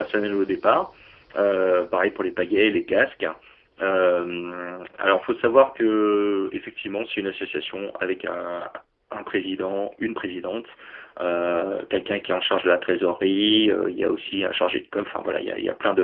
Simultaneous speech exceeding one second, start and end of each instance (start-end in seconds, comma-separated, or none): none